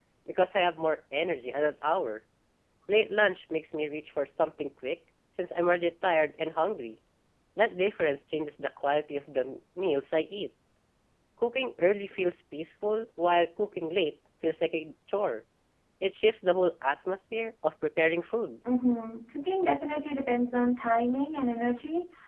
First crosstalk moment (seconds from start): none

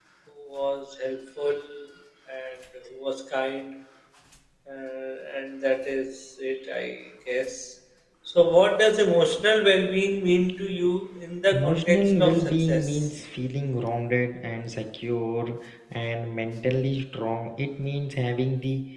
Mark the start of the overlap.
11.5 s

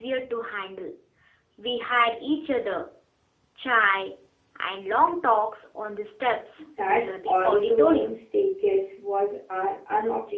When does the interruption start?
6.6 s

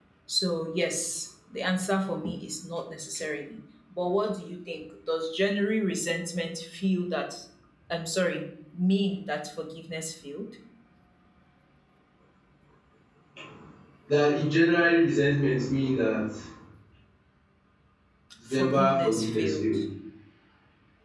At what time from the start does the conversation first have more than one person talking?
18.5 s

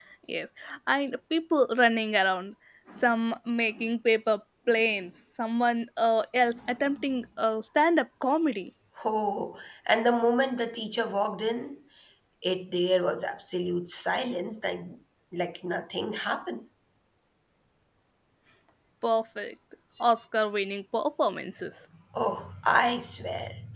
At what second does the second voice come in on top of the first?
none

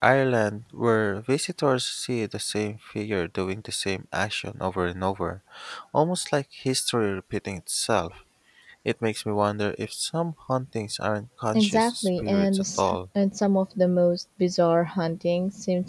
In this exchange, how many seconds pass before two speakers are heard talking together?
11.5 s

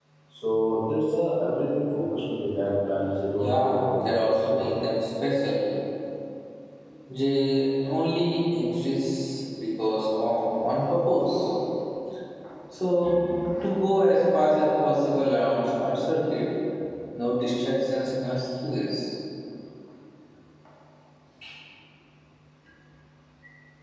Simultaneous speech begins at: 3.4 s

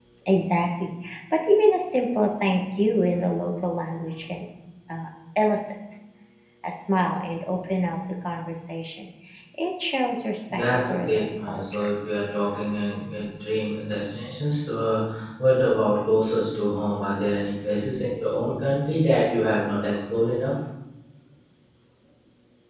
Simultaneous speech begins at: 10.5 s

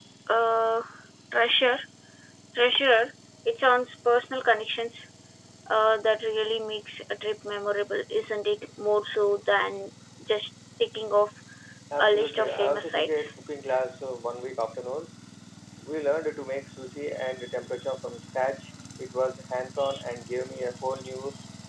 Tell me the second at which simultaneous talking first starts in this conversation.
12.0 s

